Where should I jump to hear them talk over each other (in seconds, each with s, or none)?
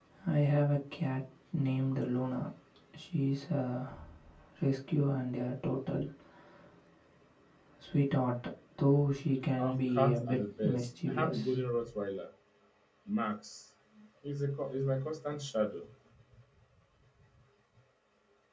9.6 s